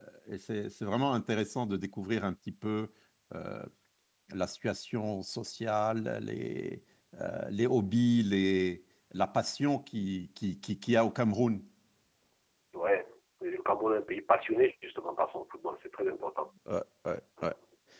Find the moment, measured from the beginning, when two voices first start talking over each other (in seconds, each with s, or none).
none